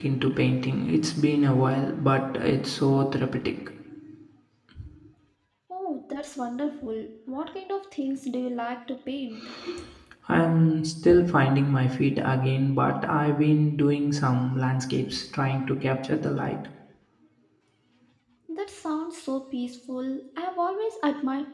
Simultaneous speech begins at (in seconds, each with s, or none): none